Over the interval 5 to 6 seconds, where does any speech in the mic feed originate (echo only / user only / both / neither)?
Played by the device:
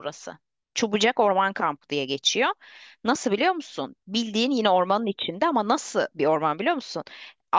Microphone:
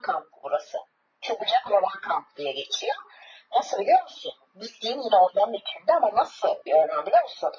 echo only